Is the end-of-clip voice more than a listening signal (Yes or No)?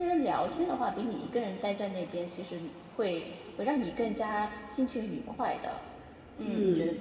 Yes